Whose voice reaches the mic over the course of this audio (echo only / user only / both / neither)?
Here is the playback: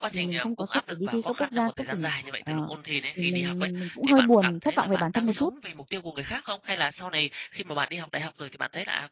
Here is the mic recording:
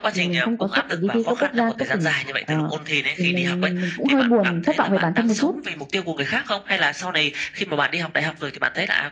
echo only